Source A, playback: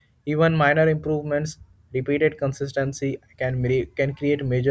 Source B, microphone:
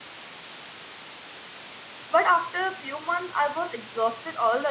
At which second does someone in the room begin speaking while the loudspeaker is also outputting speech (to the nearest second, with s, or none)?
2 s